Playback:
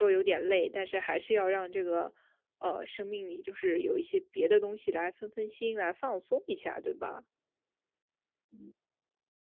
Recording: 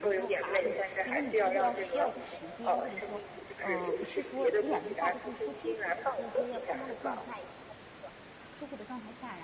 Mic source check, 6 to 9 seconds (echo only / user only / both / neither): both